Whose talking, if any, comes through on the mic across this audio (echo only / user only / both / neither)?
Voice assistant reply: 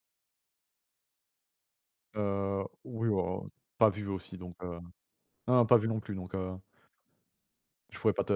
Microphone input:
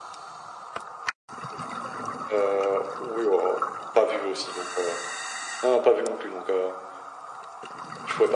echo only